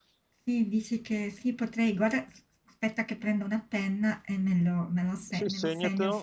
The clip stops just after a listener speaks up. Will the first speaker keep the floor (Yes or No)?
No